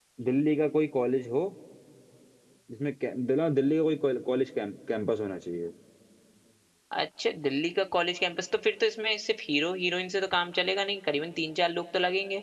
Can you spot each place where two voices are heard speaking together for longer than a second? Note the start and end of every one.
none

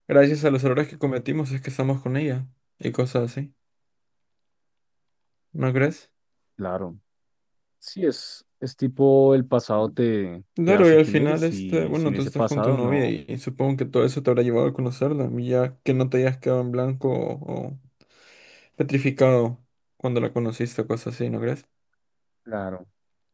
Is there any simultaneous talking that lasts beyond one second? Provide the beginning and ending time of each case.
10.7-13.0

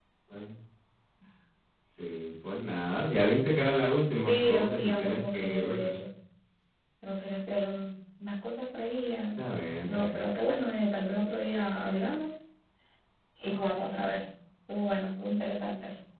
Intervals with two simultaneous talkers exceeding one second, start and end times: 4.2-5.9

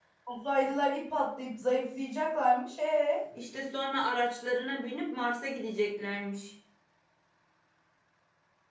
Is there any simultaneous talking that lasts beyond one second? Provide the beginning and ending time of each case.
none

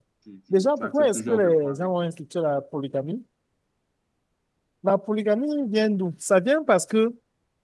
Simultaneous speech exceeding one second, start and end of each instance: 0.5-1.9

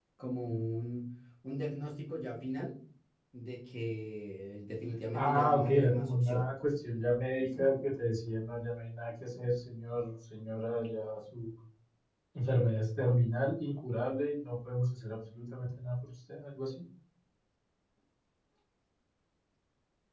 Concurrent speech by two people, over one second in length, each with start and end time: 5.1-6.5

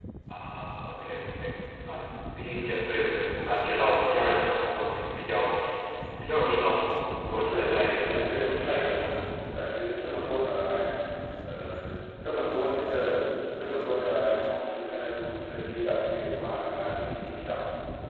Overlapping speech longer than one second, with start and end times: 7.5-9.1

